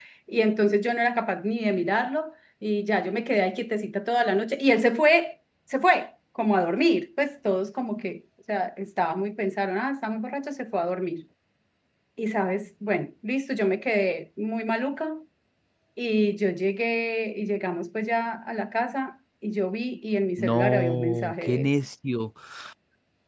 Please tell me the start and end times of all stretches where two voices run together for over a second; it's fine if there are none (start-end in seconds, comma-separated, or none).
20.4-21.7